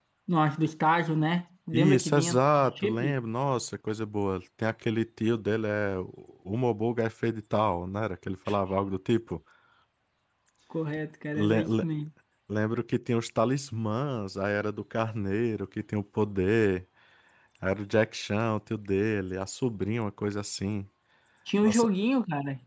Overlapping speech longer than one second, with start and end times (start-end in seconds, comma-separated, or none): 1.7-3.2